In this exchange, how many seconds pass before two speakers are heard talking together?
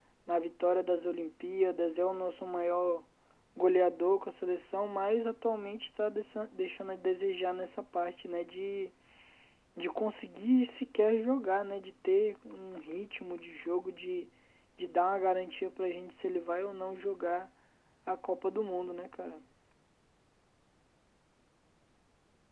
none

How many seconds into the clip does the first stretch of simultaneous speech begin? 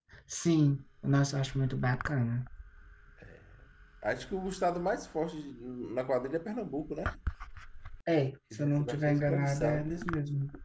9 s

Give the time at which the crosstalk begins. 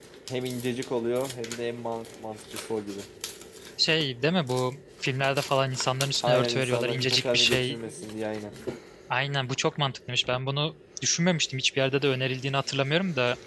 6 s

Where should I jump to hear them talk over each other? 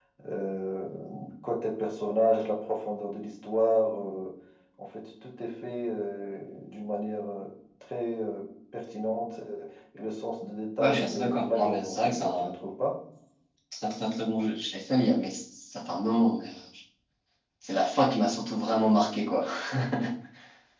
11 s

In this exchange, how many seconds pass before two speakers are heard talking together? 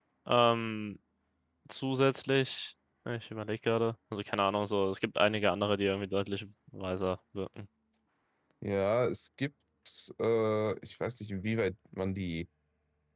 none

